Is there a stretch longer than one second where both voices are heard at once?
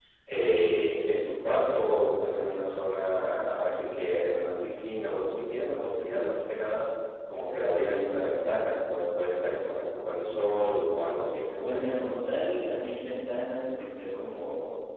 No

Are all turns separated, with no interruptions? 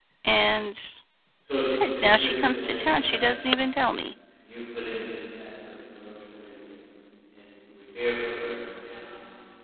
No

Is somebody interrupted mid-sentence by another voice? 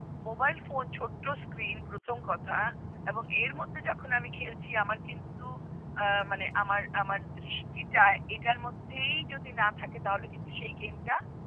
No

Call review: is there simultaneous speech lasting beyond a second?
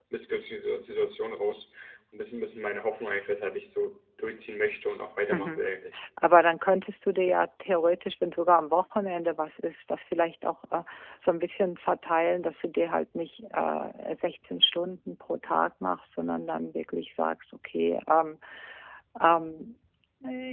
No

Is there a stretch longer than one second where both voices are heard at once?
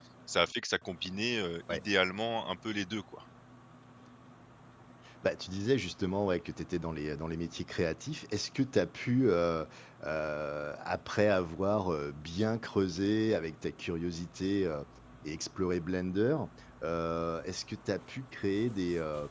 No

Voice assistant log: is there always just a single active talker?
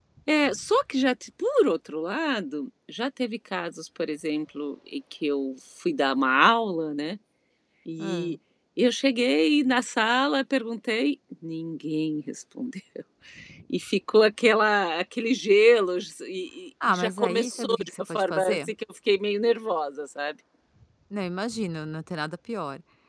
No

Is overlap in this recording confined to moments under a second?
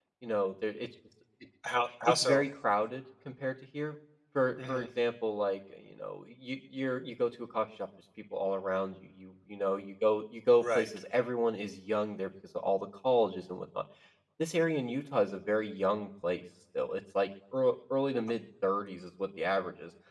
Yes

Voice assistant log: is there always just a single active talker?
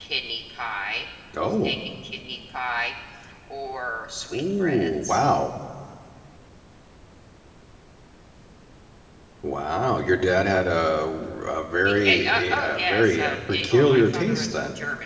No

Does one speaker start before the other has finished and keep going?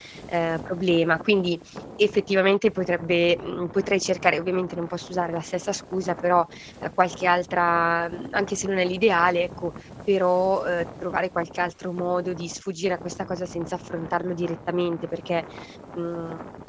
No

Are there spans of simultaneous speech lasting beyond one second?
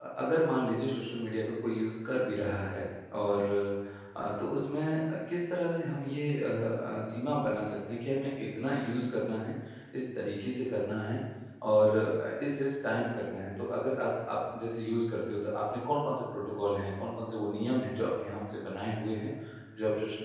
No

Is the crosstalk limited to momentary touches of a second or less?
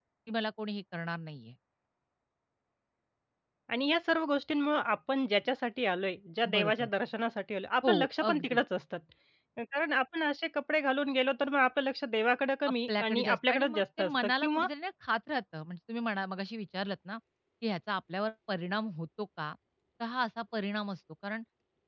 No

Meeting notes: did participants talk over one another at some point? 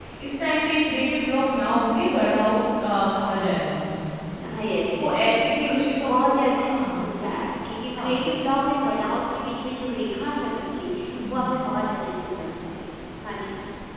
Yes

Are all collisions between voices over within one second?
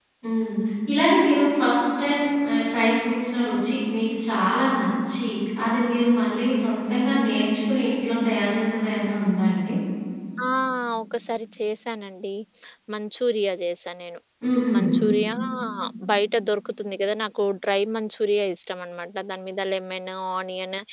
Yes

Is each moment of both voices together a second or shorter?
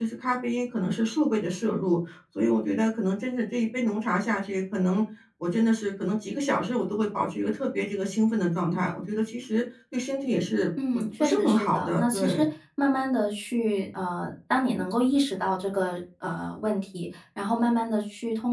No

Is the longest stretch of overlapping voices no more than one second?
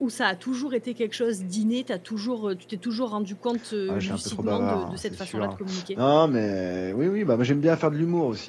No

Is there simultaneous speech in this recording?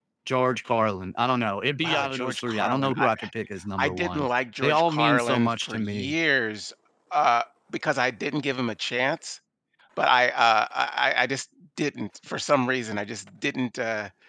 Yes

